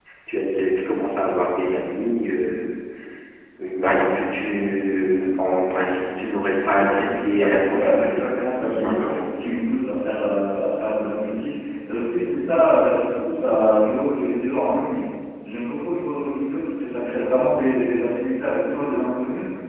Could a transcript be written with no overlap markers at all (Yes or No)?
No